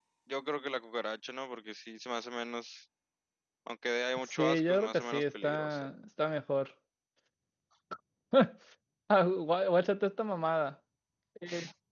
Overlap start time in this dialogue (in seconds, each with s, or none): 4.2 s